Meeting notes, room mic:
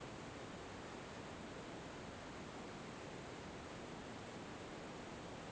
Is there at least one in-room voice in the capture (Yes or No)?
No